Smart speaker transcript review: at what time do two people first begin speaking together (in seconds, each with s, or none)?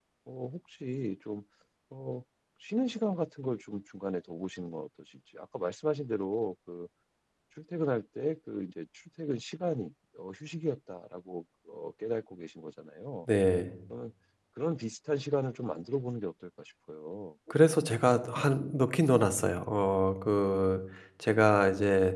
none